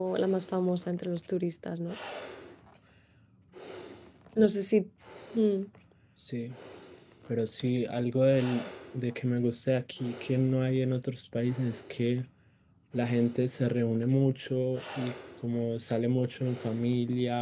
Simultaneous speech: No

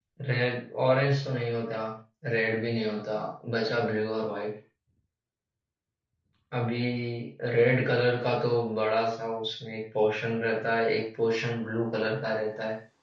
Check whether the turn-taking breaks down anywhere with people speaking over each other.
No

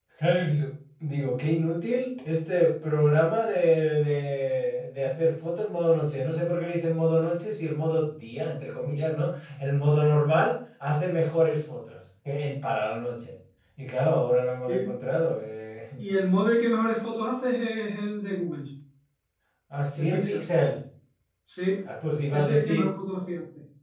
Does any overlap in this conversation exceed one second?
No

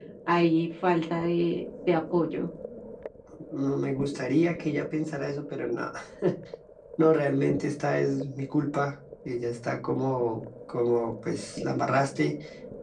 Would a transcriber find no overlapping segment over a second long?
Yes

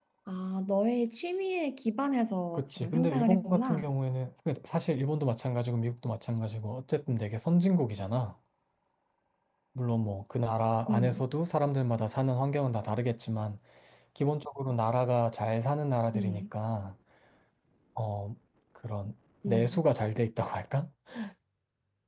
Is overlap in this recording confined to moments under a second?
No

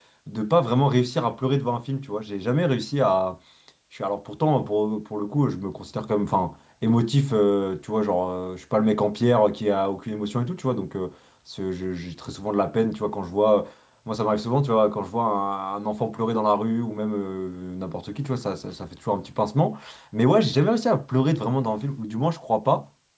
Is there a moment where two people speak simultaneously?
No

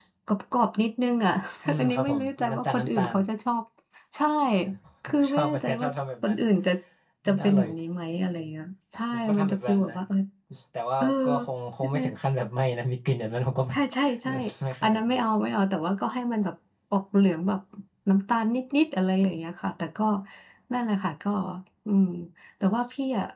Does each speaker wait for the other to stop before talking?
No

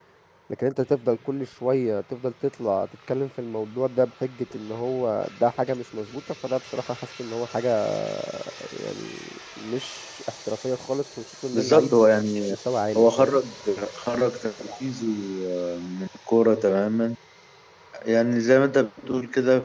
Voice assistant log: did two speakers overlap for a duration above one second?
No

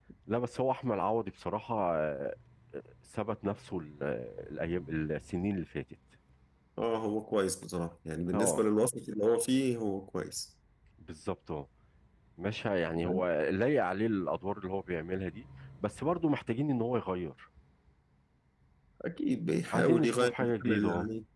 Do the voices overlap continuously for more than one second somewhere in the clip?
Yes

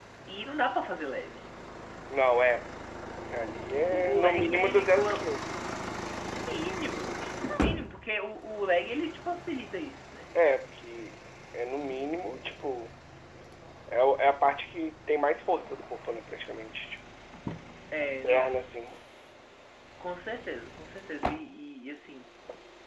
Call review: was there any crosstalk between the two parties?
Yes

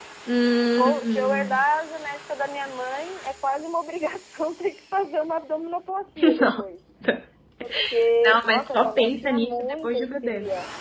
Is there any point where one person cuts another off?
Yes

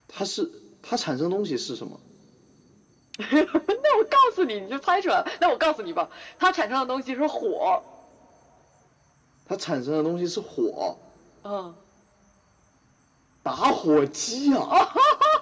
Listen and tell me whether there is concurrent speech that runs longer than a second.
No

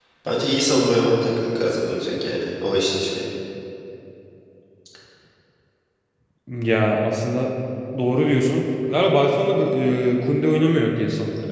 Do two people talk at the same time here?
No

